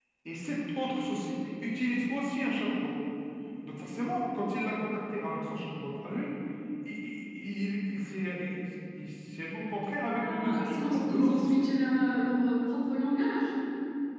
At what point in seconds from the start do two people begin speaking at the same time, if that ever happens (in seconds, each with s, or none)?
10.2 s